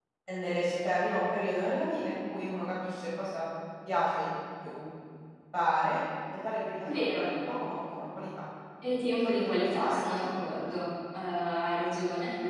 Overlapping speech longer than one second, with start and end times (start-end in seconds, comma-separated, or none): 9.2-10.5